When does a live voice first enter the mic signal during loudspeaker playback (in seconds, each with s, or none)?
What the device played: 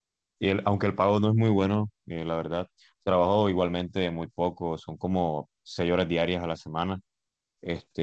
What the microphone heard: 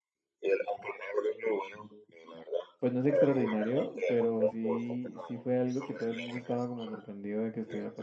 2.8 s